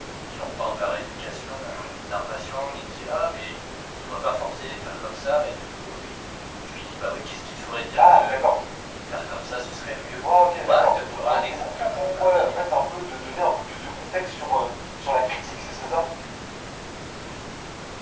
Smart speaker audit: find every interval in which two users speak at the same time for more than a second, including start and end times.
10.2-12.6

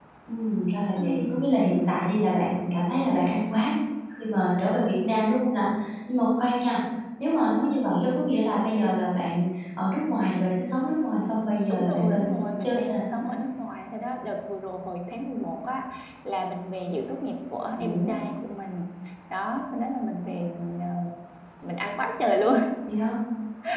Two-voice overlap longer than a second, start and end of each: 11.7-13.3

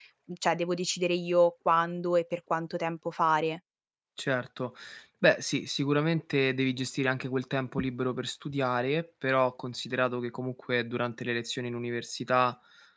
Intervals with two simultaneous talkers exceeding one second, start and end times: none

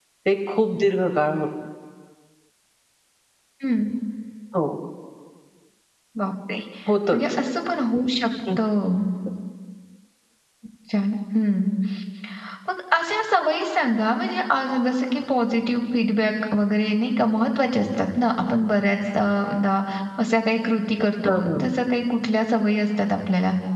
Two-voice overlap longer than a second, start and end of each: none

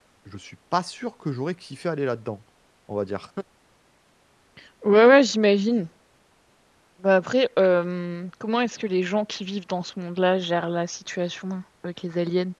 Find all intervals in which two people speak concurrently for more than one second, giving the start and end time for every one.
none

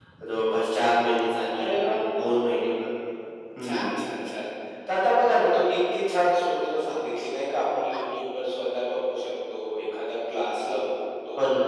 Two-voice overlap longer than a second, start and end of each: none

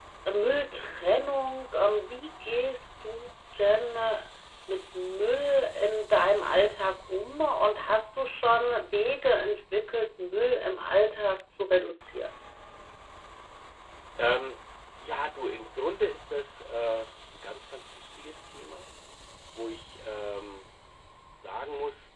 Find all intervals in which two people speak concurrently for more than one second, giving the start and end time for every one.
none

